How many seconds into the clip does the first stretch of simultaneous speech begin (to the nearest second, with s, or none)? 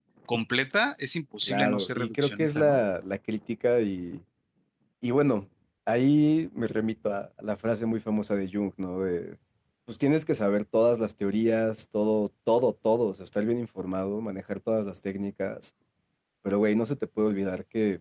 1 s